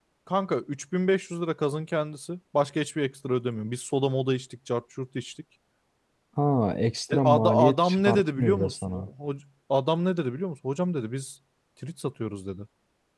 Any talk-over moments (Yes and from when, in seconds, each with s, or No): Yes, from 7.1 s